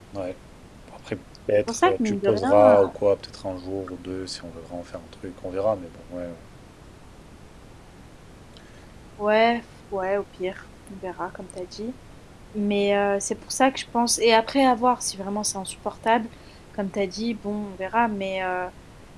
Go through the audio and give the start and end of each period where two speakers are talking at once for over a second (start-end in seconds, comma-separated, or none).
1.7-2.9